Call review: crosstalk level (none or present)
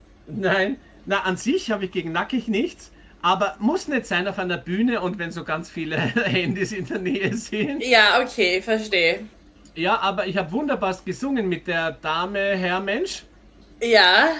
none